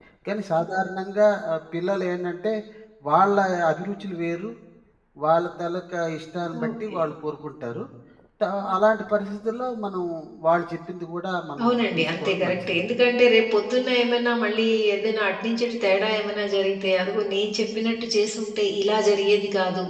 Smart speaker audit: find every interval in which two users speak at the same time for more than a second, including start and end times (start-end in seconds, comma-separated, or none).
11.6-12.8